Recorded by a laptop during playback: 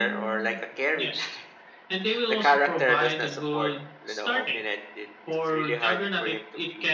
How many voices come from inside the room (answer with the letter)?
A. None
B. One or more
B